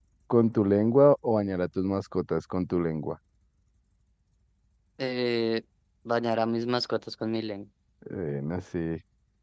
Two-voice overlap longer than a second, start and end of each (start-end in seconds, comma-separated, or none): none